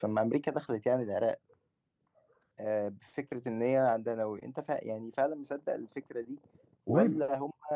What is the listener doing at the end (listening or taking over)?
listening